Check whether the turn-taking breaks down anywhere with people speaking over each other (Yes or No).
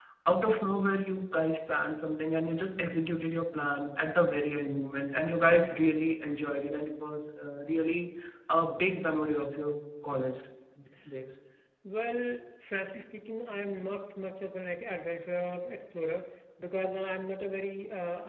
No